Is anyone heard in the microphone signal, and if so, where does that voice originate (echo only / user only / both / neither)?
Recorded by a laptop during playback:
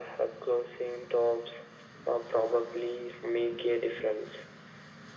echo only